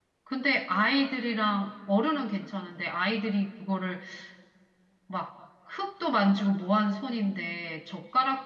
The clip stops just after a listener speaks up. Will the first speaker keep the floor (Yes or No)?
Yes